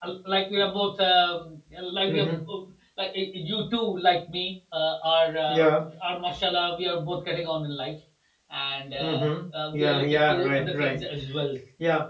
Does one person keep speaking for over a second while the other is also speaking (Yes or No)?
Yes